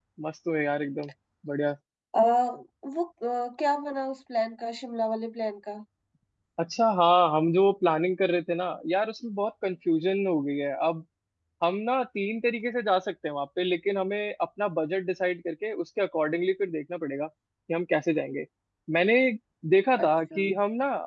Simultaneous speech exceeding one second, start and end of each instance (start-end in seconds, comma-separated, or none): none